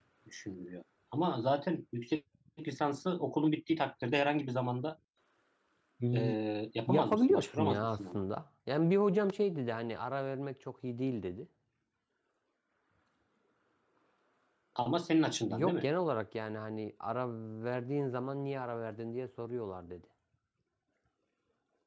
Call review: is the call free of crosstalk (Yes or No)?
No